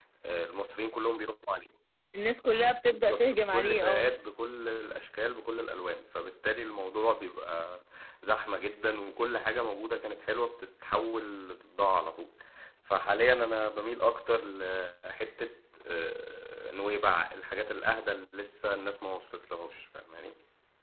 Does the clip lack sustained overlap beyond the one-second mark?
No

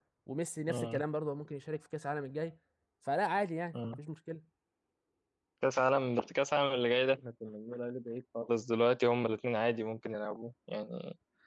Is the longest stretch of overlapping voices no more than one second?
Yes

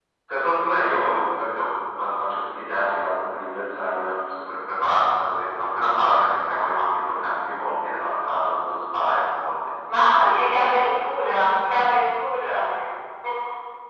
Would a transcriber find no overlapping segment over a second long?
Yes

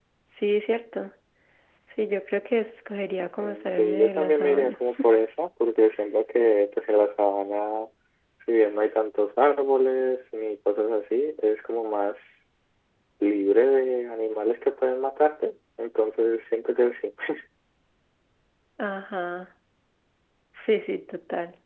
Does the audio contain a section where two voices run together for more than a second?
Yes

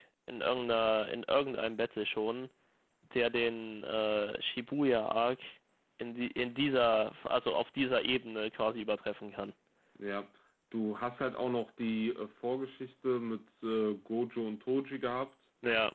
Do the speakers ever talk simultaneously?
No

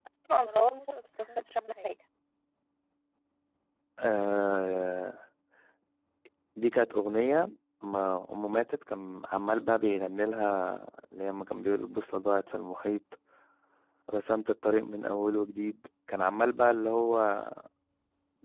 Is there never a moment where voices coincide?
Yes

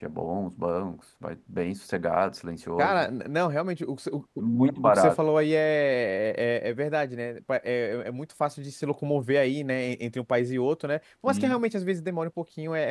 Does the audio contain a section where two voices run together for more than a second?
No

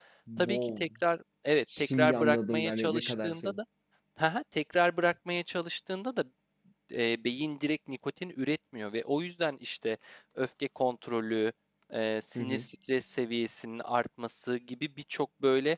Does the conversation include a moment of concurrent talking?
Yes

